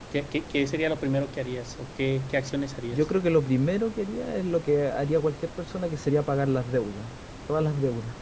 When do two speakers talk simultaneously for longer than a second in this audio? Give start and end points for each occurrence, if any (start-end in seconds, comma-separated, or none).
none